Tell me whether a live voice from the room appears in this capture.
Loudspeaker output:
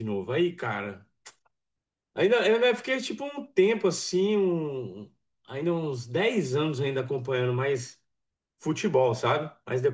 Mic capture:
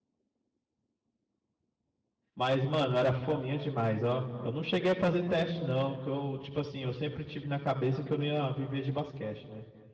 Yes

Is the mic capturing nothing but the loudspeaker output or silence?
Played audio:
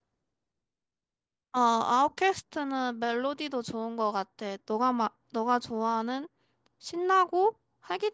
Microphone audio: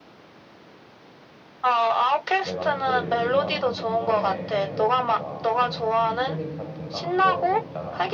No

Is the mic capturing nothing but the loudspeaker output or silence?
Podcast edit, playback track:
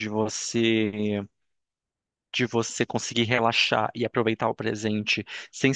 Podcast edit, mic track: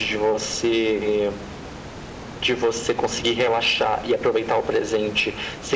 Yes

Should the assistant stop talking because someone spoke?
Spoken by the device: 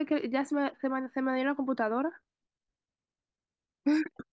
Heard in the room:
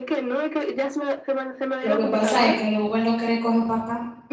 Yes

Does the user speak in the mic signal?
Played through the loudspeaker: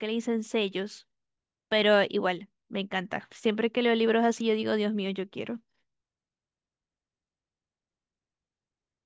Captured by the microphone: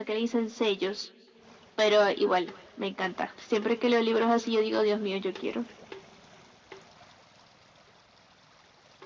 No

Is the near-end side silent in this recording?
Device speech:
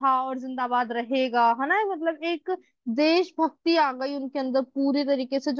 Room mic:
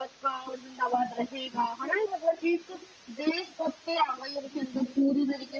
Yes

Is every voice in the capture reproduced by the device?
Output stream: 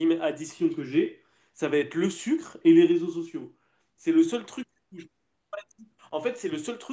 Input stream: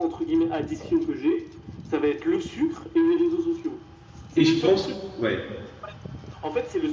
No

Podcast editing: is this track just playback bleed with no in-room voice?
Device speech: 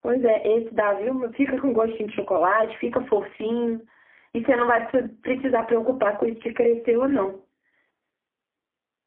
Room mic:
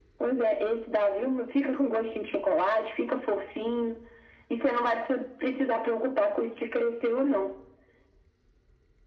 Yes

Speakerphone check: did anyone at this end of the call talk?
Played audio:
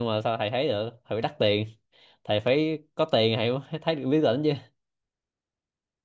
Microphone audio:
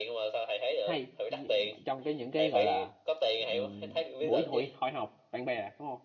Yes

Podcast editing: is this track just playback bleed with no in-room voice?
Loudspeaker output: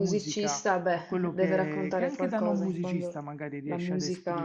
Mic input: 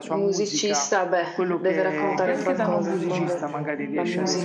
No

